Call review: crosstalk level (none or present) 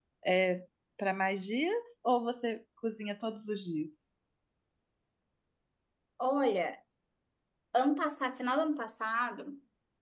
none